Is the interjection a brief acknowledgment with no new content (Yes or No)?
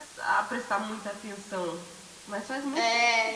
No